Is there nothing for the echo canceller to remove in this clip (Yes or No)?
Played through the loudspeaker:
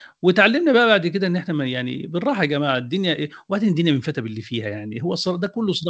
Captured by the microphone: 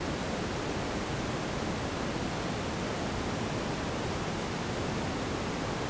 Yes